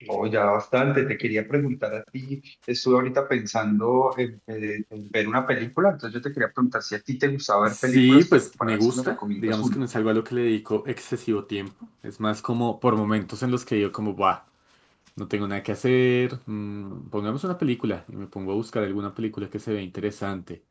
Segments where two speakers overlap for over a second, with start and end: 7.7-9.8

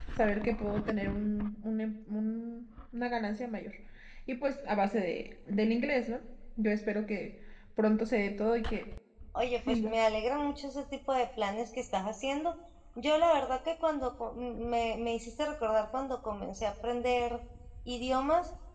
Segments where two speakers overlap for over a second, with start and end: none

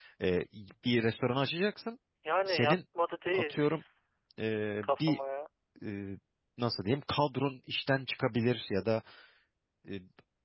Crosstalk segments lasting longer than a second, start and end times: none

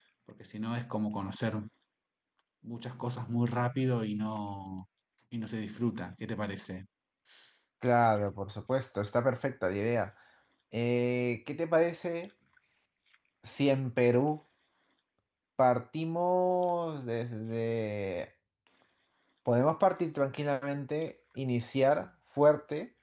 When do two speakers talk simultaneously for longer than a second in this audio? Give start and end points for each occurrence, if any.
none

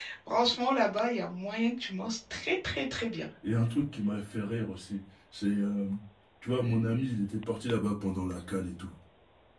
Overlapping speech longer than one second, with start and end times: none

